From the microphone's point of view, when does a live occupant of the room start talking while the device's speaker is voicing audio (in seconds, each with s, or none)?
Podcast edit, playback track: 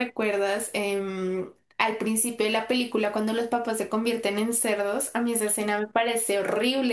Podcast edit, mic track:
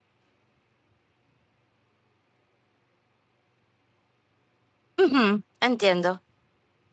5.0 s